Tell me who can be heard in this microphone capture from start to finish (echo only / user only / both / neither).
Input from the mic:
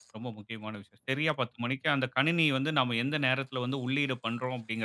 user only